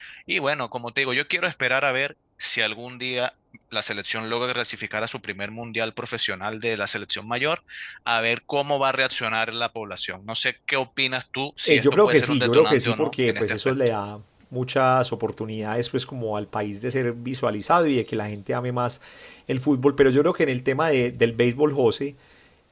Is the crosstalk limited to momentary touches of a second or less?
No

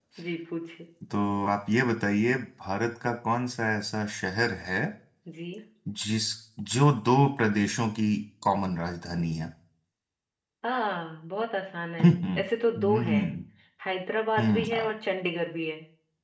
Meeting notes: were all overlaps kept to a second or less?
Yes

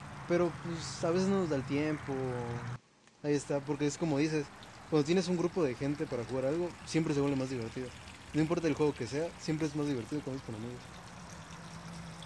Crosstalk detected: No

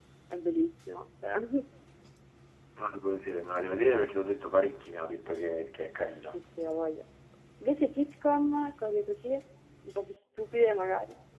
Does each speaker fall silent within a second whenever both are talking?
Yes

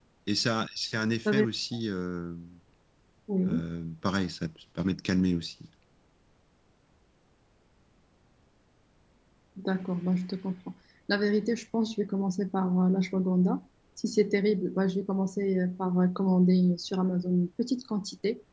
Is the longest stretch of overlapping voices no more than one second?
Yes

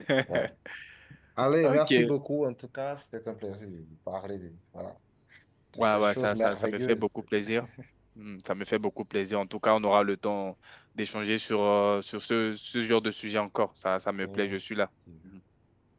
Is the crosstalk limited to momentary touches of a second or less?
No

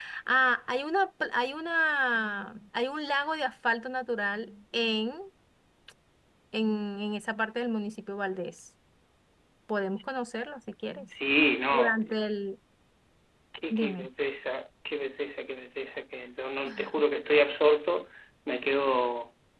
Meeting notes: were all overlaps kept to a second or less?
Yes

